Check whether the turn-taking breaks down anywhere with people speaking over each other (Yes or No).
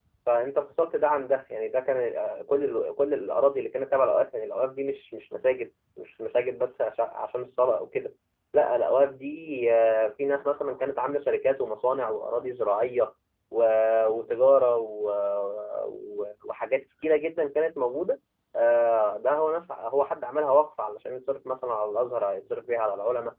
No